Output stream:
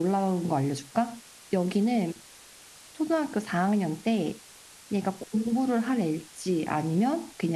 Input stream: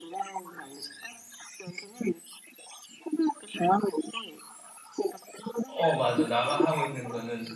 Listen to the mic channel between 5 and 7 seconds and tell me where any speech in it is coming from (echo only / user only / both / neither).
both